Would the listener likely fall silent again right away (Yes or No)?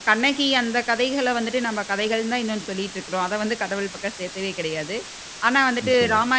Yes